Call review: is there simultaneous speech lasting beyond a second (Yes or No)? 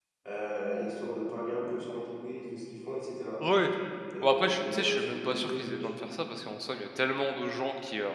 Yes